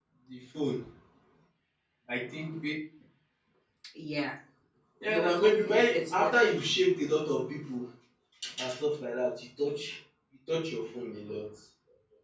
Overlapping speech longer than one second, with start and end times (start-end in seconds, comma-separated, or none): 5.1-6.7